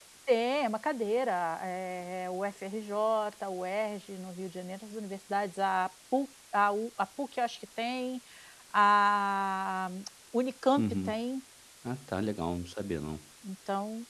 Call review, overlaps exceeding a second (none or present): none